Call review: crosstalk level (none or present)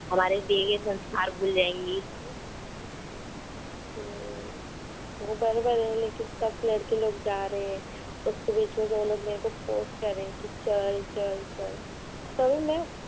none